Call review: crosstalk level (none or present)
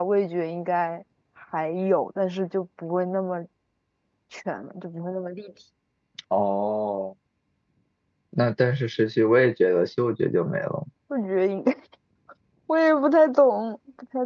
none